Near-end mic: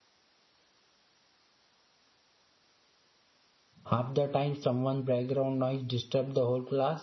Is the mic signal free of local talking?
No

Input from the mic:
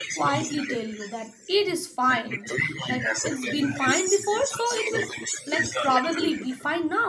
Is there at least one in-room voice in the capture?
Yes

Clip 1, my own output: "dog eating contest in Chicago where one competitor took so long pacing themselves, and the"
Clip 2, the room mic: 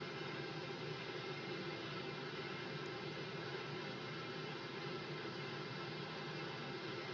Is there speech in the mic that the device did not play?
No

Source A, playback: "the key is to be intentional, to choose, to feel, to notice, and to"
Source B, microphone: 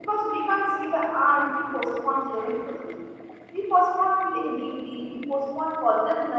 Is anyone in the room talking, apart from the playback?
Yes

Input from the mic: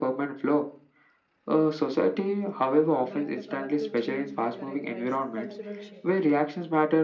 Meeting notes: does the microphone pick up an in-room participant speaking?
Yes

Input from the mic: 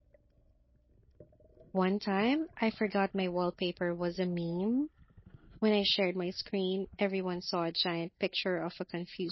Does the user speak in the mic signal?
Yes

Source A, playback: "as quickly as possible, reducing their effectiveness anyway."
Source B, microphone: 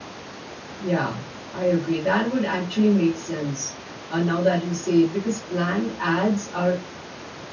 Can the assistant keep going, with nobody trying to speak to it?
No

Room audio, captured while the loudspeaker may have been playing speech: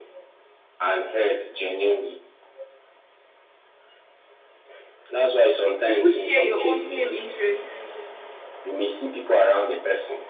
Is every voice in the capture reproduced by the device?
No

